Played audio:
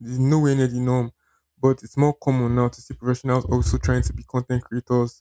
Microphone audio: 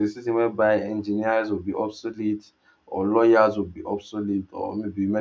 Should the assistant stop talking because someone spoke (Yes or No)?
Yes